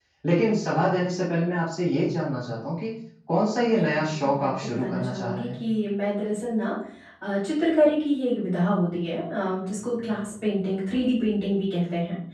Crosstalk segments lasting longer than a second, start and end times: 3.9-5.6

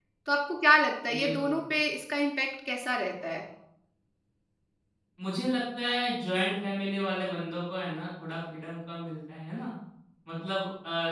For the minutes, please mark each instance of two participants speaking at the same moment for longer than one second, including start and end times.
none

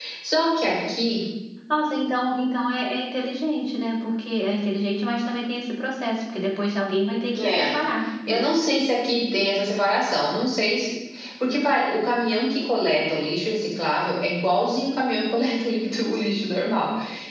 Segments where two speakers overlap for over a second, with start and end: none

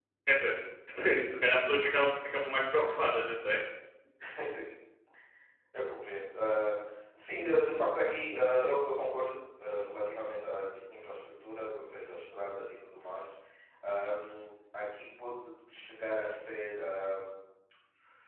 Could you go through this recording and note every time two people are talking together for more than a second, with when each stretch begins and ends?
none

